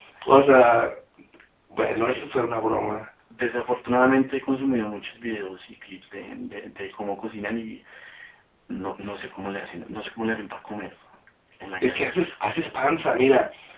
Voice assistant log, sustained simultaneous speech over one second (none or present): none